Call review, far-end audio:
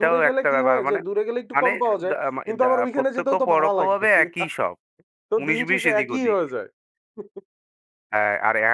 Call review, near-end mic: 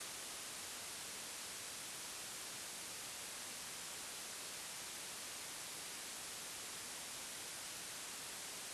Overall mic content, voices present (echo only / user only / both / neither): neither